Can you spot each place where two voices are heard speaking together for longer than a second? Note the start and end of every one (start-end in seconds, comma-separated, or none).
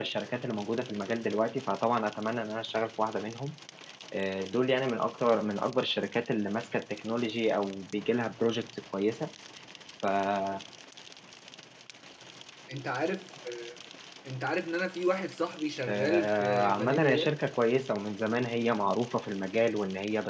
15.9-17.3